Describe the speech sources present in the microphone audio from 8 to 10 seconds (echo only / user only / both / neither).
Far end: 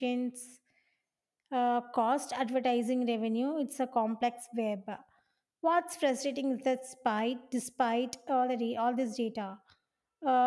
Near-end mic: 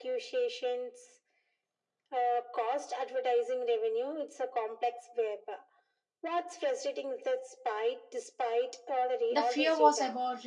both